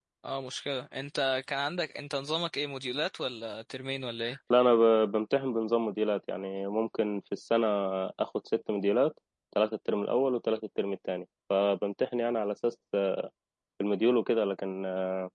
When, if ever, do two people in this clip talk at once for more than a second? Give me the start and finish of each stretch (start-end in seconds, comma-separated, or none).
none